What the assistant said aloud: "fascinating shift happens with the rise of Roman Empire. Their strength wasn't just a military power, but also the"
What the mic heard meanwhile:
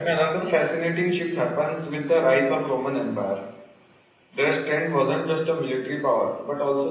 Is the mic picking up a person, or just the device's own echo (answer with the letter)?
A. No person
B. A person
A